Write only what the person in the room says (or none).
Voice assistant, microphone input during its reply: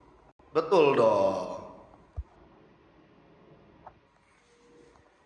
Betul dong.